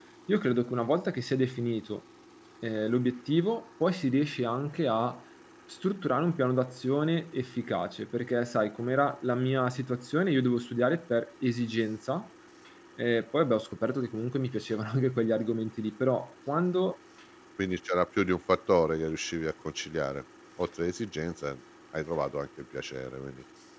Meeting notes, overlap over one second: none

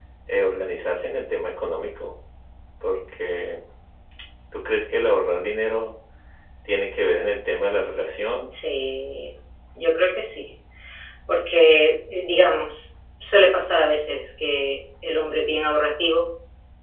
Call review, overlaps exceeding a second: none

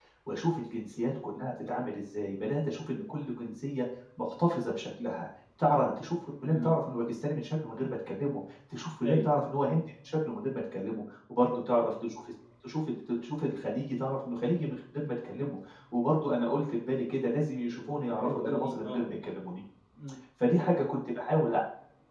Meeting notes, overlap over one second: present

